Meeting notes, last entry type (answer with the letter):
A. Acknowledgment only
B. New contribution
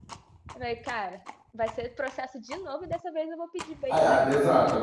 B